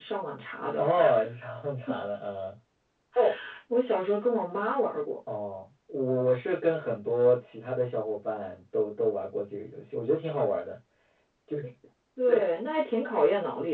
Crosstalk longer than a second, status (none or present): none